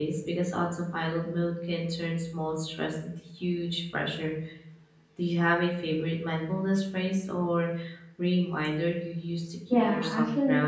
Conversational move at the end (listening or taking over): taking over